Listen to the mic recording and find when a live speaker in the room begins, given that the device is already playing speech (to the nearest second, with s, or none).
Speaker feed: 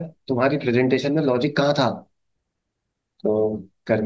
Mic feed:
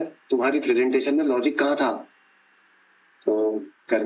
none